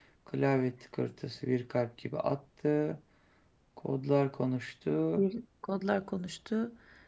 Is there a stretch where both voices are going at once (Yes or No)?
No